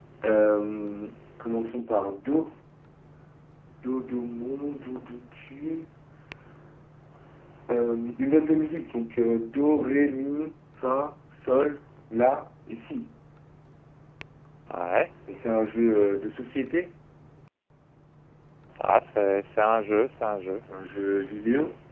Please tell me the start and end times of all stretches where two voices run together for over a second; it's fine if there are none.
none

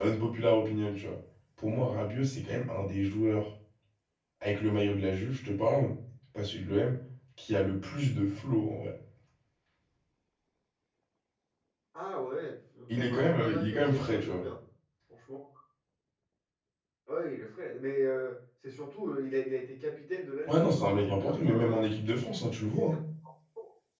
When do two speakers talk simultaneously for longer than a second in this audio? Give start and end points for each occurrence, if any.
13.0-14.4, 20.5-21.9

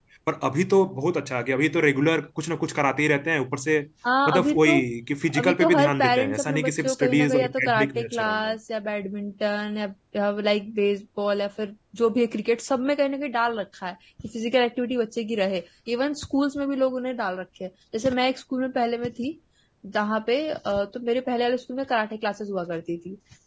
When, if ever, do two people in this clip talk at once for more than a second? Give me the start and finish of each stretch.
5.4-8.6

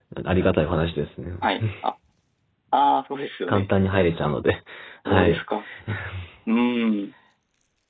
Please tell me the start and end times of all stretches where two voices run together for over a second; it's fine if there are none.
none

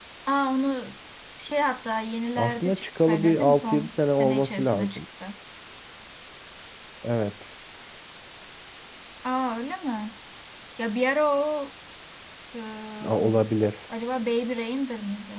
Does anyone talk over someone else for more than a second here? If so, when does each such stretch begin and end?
2.4-5.0

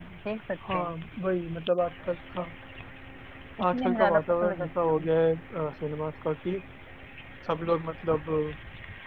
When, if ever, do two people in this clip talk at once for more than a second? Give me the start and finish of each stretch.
3.7-5.1

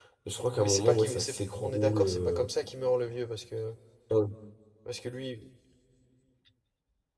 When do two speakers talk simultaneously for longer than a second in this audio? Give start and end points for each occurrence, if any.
0.6-2.5

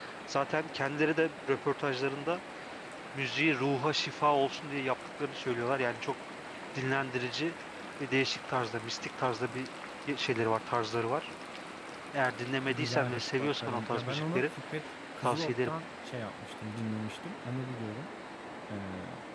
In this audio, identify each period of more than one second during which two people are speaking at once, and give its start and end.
12.7-14.5

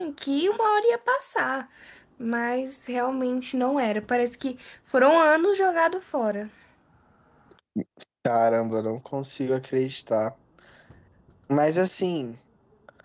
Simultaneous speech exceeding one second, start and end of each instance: none

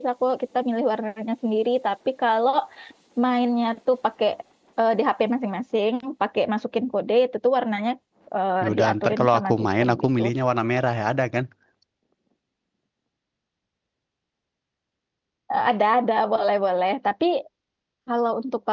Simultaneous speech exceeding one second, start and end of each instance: 8.6-10.2

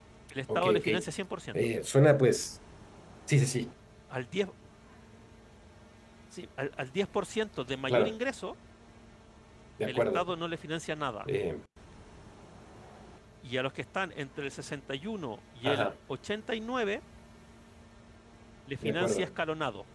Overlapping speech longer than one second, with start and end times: none

